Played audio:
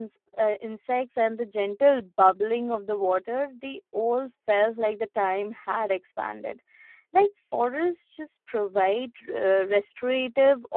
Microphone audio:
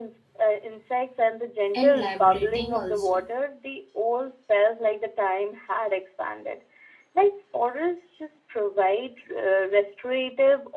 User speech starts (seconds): 1.7 s

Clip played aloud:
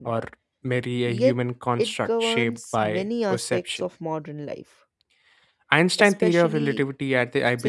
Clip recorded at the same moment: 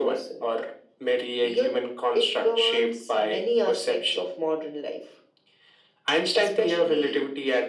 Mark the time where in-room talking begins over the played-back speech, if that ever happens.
none

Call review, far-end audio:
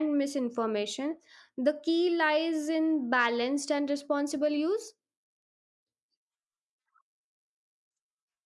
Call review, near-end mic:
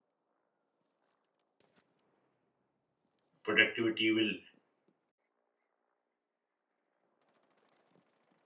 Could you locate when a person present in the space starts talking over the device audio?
3.4 s

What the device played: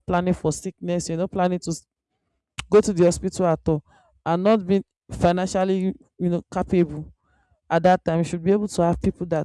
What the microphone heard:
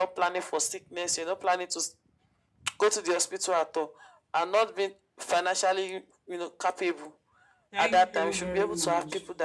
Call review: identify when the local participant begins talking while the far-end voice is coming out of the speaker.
7.7 s

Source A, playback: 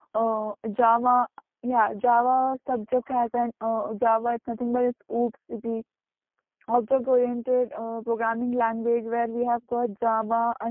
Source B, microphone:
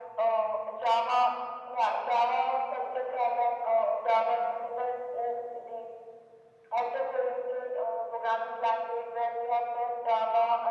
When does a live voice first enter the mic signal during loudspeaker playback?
none

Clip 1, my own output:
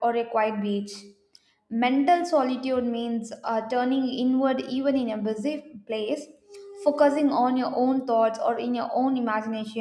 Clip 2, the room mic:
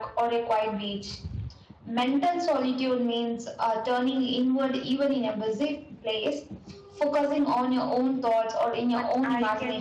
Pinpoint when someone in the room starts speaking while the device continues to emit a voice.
8.9 s

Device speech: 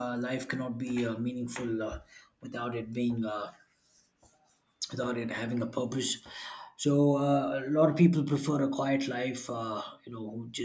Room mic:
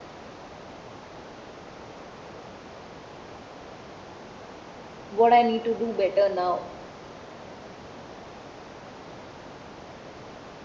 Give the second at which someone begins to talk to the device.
5.2 s

